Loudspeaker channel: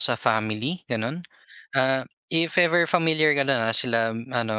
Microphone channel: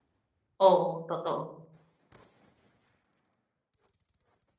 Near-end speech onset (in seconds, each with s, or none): 0.6 s